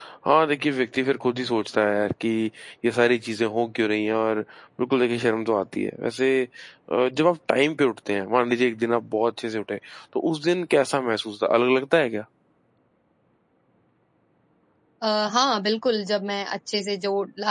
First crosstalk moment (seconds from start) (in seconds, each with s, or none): none